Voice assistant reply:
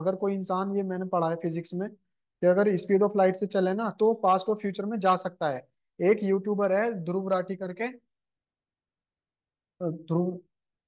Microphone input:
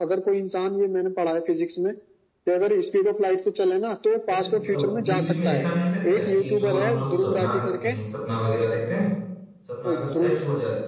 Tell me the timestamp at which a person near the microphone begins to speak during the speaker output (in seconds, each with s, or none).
4.3 s